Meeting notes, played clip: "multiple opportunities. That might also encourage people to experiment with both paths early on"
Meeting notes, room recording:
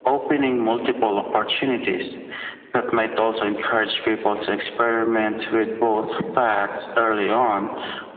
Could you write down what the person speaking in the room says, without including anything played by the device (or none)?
none